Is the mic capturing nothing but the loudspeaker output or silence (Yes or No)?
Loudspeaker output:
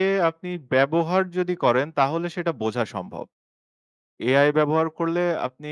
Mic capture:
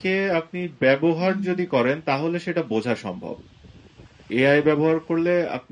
No